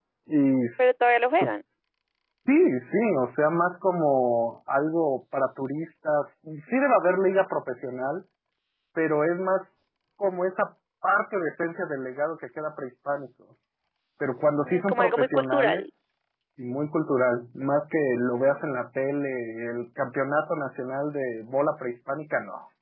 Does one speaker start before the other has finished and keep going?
Yes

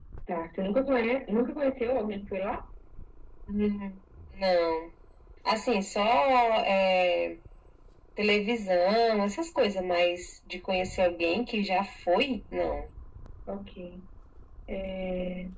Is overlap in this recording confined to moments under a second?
Yes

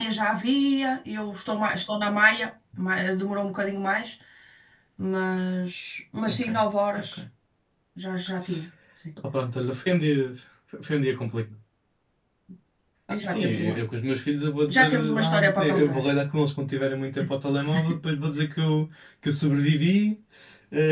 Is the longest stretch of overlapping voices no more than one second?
No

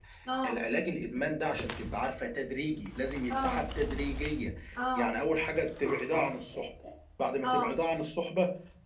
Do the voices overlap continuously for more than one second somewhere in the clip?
No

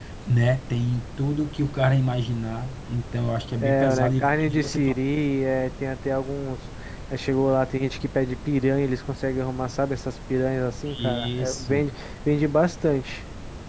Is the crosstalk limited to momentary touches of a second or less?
No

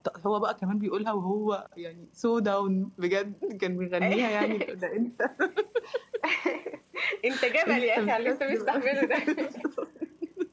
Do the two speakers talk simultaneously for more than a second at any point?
Yes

